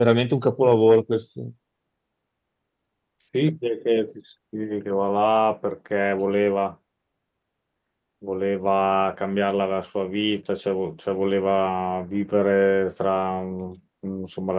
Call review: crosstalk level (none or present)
none